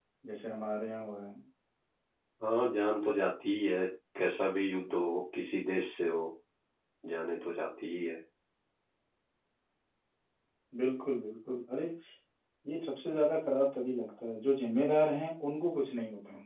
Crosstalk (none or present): none